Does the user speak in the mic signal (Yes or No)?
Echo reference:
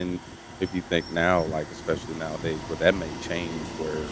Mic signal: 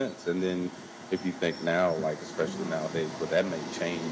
Yes